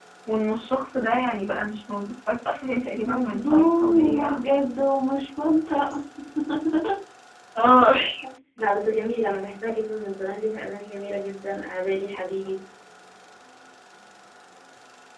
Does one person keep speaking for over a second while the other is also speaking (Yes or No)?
Yes